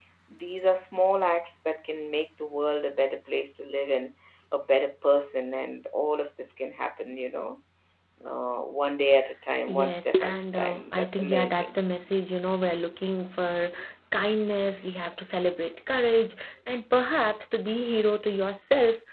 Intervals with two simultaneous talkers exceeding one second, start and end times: 9.7-11.7

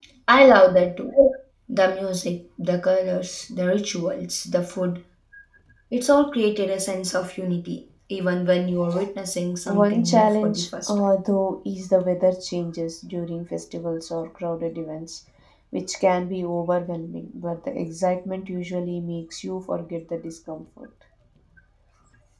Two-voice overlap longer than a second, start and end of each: 9.7-10.9

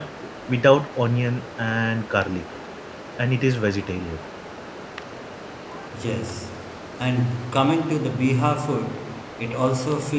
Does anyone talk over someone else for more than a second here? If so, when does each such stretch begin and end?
none

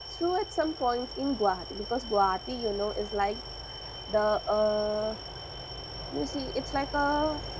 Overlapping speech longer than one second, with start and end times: none

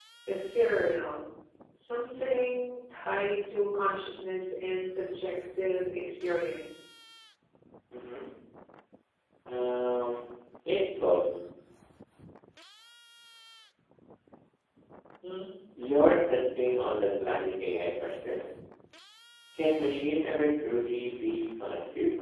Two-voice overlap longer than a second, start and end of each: none

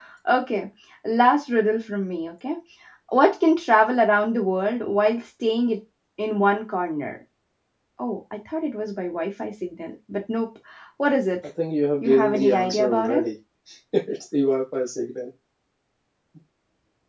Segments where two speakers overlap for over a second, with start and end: 12.0-13.2

